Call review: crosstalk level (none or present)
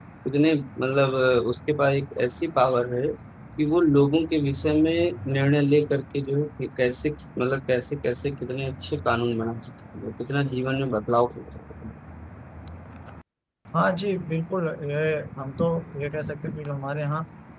none